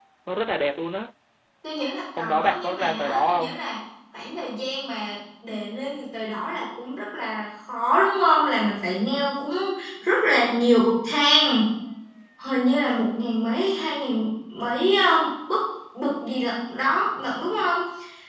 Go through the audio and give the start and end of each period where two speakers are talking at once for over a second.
2.2-3.6

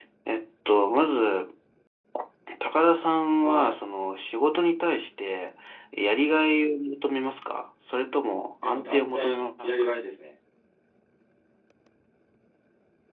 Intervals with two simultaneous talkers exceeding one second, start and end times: 8.6-9.9

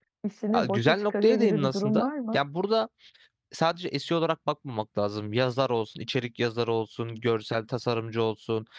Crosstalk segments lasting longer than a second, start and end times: 0.6-2.4

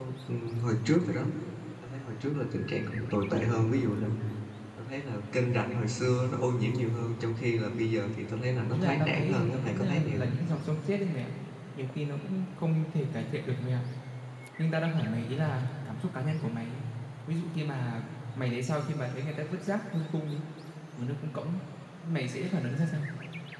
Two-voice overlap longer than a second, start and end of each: 8.7-10.3

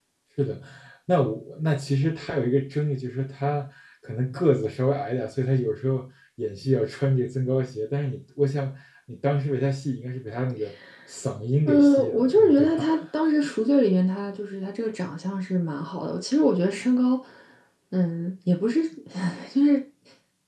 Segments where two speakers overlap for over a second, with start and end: 11.7-12.9

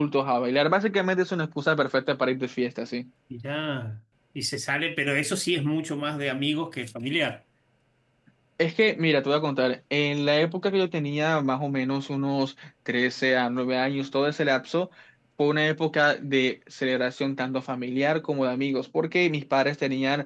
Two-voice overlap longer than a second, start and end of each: none

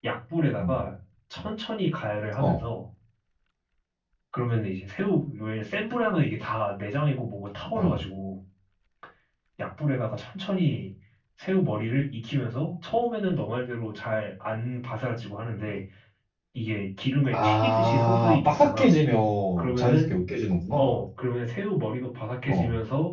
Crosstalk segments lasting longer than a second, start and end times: 17.3-18.9

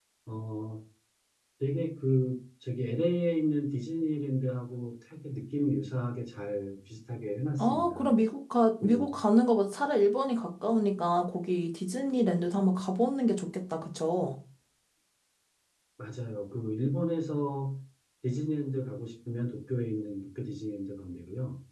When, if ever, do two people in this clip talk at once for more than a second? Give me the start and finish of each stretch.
none

